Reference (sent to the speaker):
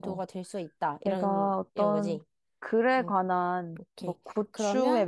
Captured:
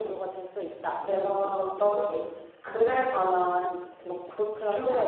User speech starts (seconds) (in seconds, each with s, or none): 2.6 s